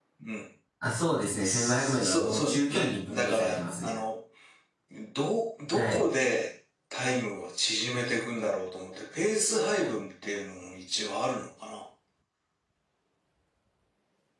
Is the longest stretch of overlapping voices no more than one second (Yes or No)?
No